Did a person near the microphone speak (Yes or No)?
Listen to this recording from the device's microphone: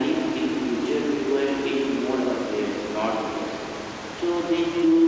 No